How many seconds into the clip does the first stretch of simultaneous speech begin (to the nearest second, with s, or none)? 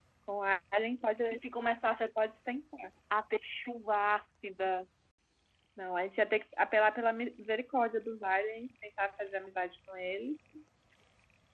none